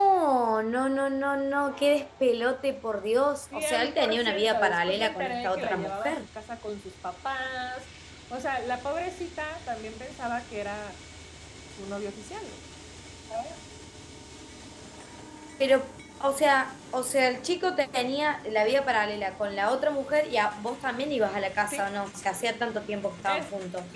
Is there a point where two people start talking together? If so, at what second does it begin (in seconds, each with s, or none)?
3.5 s